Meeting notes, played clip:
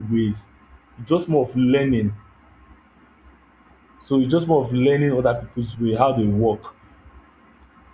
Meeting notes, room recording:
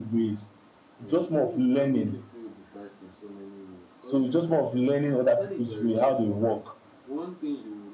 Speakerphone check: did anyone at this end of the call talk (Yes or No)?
Yes